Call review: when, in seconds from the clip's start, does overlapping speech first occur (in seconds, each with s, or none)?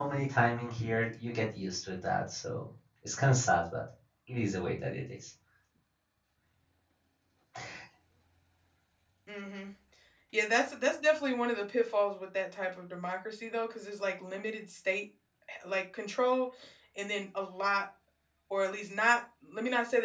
none